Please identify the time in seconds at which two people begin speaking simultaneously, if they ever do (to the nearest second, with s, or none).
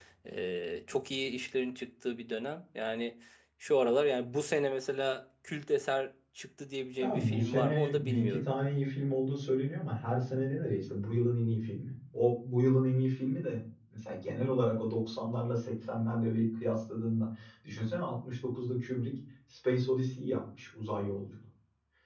7 s